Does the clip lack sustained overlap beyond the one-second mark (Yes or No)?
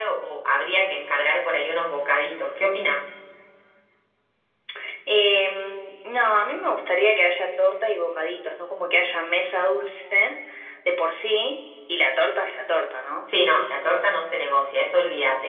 Yes